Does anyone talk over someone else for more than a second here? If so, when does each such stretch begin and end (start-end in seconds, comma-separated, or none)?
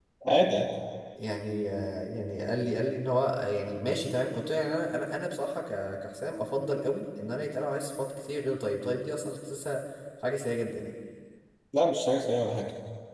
none